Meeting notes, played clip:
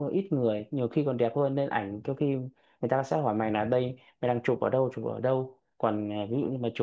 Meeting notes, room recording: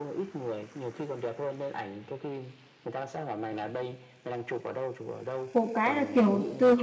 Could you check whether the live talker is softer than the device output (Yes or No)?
No